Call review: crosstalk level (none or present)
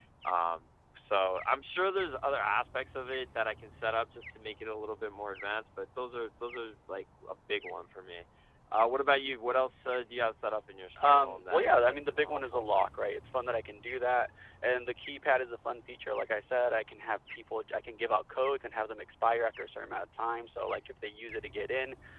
present